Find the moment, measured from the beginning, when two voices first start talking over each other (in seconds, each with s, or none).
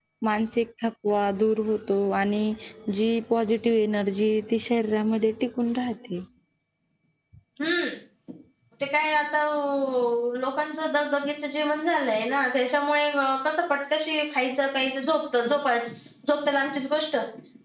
none